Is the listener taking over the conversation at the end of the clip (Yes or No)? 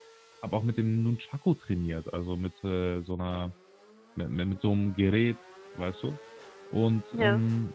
No